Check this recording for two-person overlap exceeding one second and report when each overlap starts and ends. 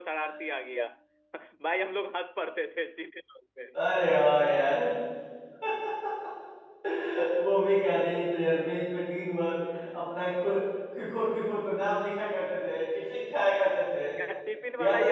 none

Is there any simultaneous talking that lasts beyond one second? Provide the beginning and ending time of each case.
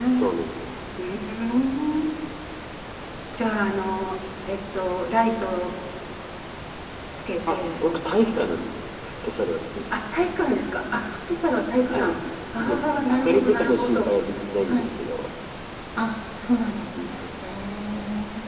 12.5-14.1

